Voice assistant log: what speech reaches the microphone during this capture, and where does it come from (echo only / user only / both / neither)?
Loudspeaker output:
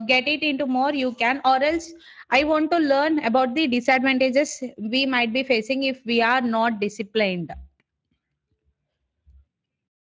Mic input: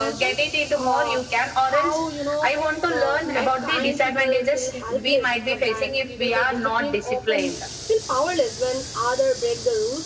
both